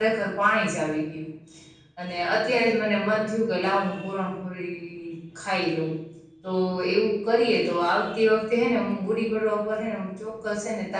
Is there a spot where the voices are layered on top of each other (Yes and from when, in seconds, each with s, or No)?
No